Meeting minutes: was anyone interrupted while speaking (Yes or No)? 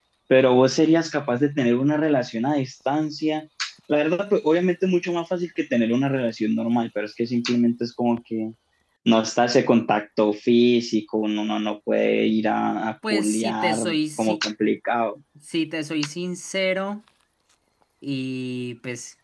Yes